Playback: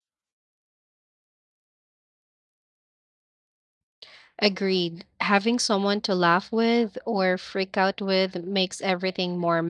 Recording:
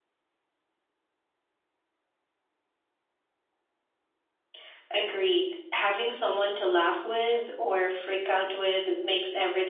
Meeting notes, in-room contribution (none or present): none